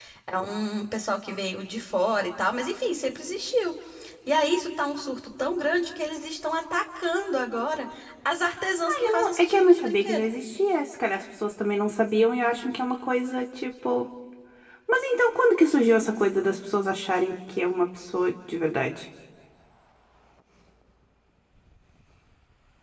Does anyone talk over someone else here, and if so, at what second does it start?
9 s

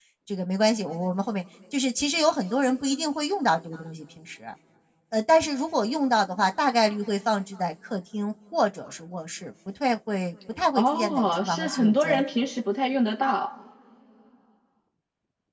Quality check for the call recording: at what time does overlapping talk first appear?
11 s

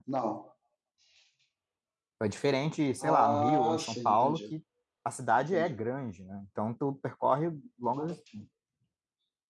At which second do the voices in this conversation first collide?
3 s

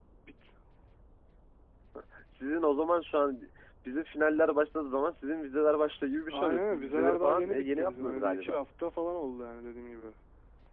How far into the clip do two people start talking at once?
6 s

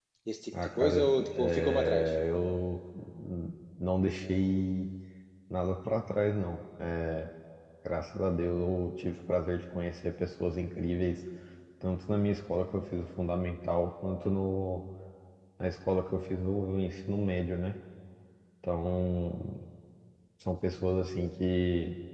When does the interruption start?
1 s

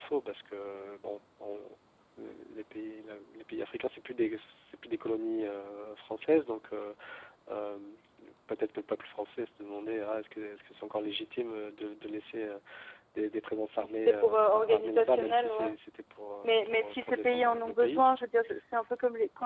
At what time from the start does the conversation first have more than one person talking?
14 s

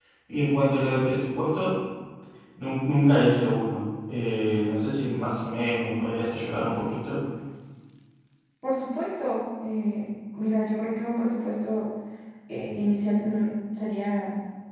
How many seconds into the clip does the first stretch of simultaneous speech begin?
none

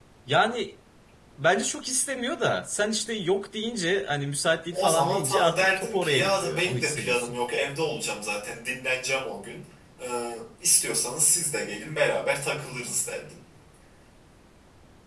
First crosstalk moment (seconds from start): 5 s

